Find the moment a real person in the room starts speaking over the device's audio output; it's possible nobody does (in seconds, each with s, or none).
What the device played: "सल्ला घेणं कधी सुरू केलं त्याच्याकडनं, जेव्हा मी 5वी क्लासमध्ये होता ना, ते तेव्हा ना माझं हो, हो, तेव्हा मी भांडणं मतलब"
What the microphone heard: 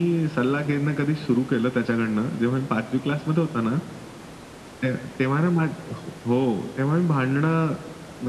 none